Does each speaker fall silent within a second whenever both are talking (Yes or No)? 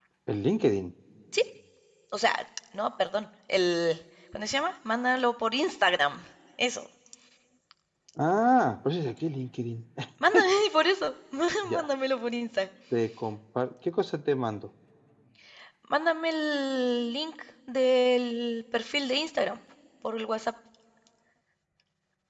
Yes